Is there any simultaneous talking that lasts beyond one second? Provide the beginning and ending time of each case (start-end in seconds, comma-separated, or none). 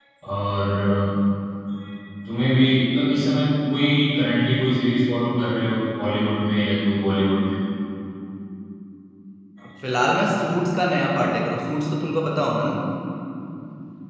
none